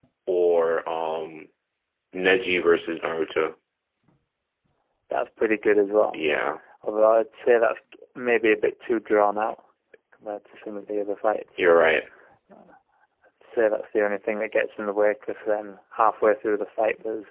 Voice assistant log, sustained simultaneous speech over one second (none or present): none